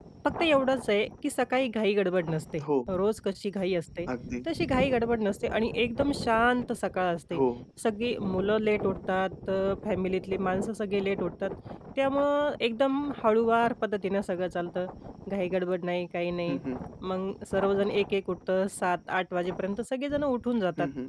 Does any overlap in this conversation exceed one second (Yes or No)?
No